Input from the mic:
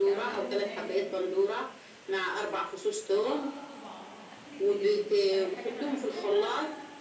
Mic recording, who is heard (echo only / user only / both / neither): both